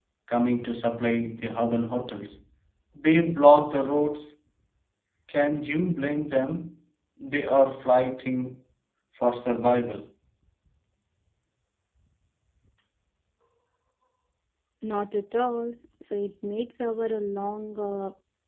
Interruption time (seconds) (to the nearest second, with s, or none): none